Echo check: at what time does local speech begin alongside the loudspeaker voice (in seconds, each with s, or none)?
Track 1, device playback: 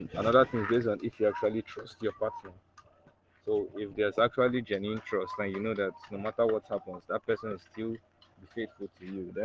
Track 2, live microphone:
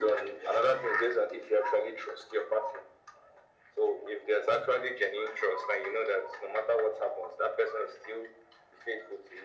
none